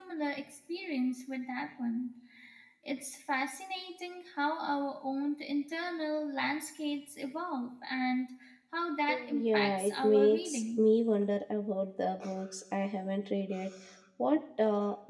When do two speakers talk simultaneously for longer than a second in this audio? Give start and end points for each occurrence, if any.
9.3-10.8

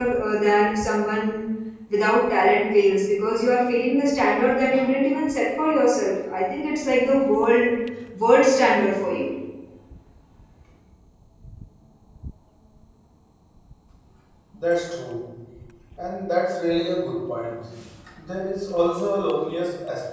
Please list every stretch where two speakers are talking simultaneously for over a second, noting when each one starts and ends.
none

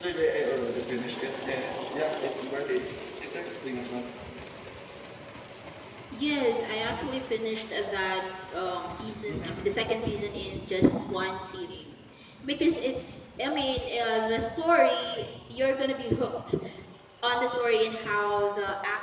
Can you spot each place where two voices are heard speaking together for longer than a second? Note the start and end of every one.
none

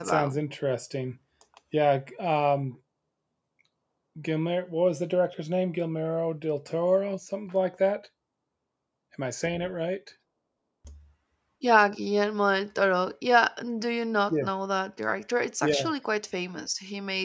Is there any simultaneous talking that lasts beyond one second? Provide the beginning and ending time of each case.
none

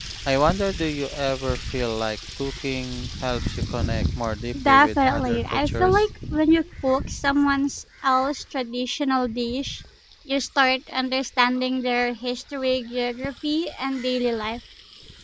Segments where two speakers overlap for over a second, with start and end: 4.7-6.0

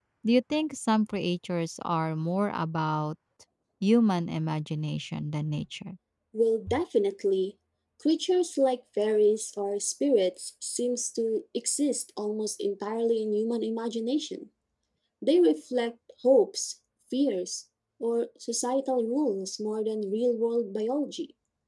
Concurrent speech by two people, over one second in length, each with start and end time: none

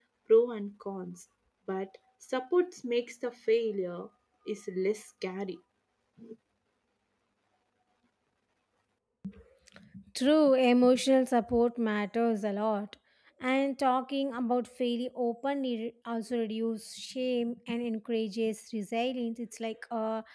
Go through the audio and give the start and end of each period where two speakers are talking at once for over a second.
none

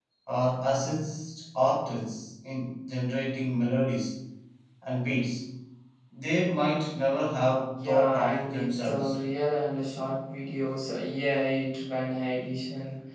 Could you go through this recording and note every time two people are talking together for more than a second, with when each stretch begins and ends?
7.8-9.1

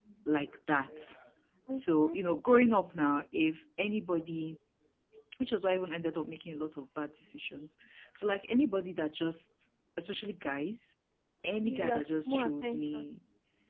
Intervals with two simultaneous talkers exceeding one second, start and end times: 11.6-13.0

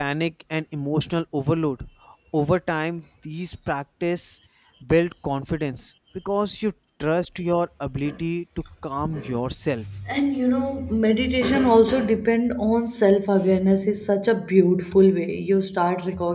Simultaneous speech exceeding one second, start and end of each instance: none

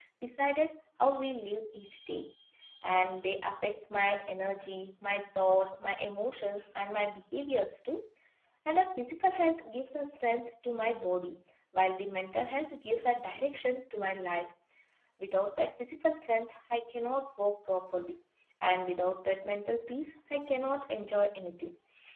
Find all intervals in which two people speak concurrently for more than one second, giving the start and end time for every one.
none

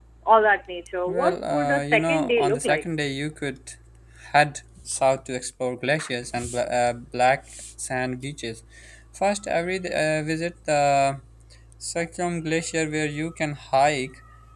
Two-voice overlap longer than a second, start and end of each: 1.1-2.8

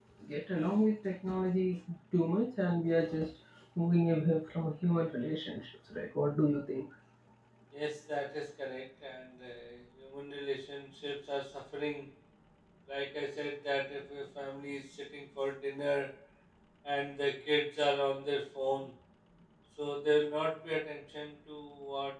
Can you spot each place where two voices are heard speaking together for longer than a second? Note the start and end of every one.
none

